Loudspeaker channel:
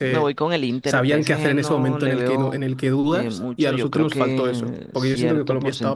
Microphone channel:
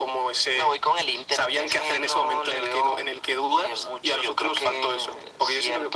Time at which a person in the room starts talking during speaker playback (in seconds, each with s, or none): none